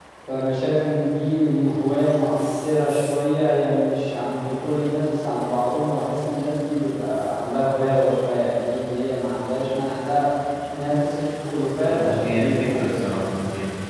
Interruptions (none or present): present